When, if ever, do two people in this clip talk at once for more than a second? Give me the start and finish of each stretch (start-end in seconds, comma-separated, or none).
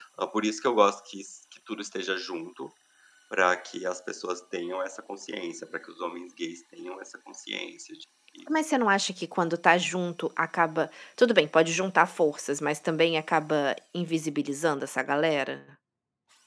none